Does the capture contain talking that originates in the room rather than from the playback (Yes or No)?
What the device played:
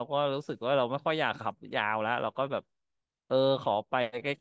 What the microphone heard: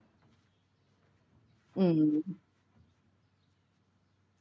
Yes